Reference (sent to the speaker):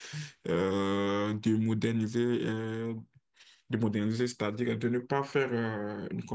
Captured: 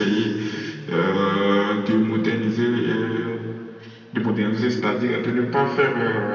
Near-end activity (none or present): none